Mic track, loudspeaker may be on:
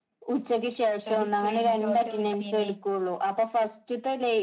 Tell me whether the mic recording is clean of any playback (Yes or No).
No